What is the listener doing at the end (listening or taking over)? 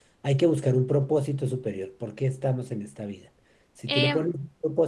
listening